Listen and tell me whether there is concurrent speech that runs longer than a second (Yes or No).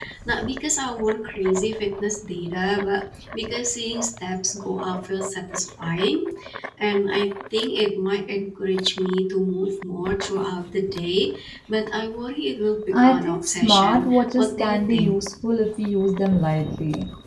Yes